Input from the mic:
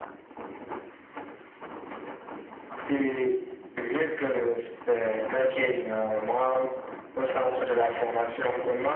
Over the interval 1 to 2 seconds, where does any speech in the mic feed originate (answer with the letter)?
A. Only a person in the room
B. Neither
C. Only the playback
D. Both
B